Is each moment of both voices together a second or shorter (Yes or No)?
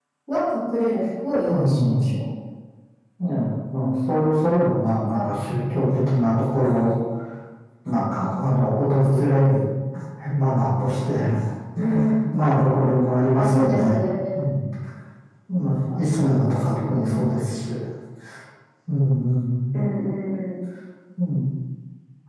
No